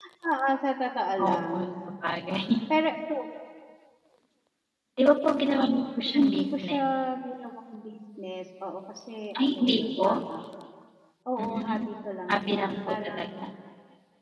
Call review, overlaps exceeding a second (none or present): present